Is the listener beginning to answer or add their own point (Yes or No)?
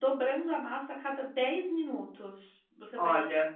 No